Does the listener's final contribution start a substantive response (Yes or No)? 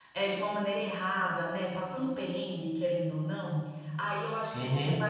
No